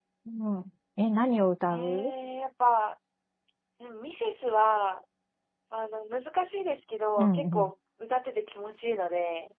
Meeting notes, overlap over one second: none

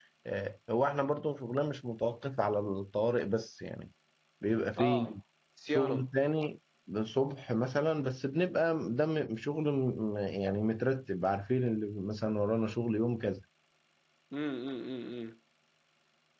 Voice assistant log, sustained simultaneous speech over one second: none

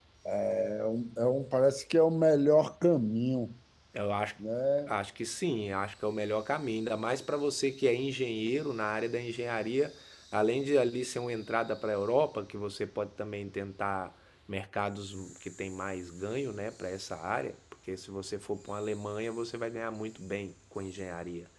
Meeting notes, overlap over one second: none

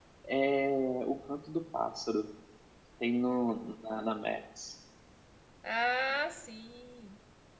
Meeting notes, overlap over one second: none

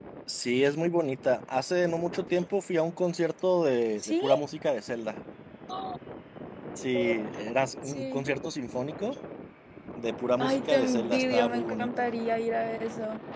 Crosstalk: present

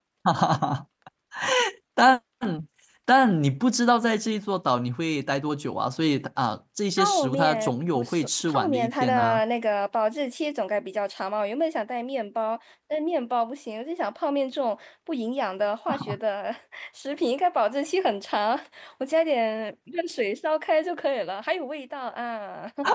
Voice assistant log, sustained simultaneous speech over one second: present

